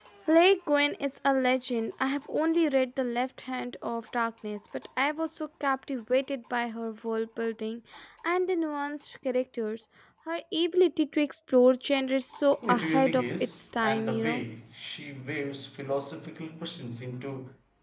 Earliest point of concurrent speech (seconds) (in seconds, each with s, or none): 12.6 s